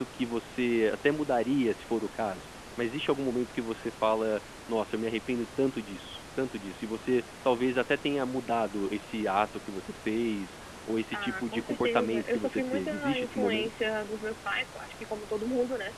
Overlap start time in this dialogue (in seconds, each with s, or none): 11.1 s